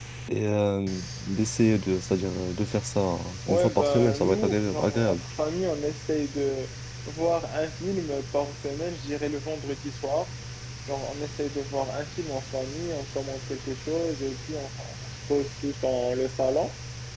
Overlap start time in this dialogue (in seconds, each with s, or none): 3.5 s